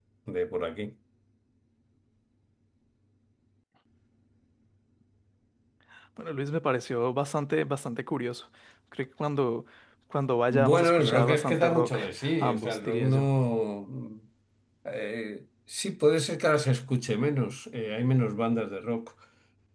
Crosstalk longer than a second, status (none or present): present